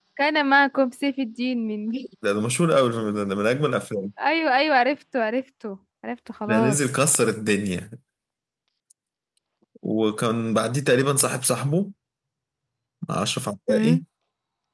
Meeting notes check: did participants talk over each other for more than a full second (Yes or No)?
No